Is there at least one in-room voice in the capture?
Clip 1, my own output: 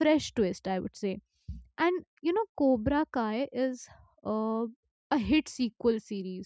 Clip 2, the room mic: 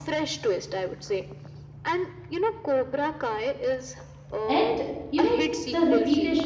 Yes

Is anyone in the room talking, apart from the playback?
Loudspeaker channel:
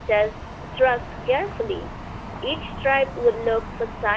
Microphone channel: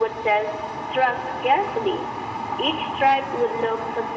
No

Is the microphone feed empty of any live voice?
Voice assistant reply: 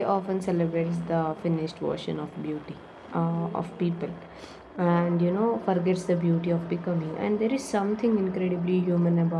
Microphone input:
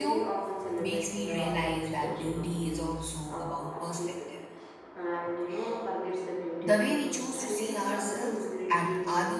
No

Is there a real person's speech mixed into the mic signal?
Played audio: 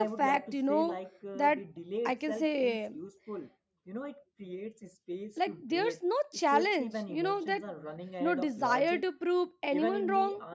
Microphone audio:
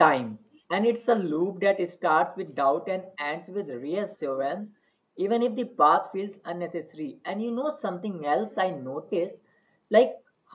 Yes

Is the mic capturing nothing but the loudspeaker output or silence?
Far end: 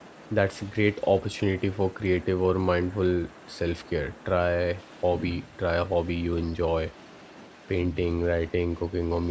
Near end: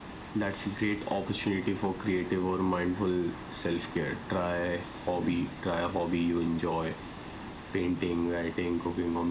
Yes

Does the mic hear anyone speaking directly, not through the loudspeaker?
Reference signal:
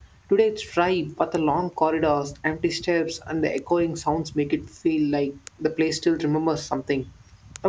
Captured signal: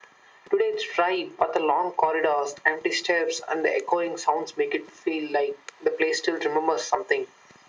No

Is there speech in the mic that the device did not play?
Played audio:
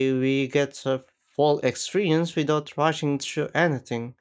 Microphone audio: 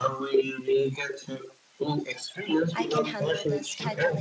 Yes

